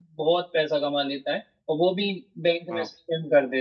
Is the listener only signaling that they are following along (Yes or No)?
Yes